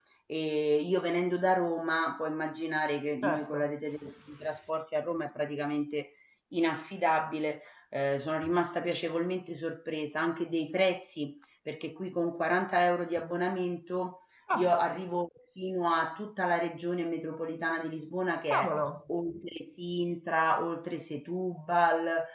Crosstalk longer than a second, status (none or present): none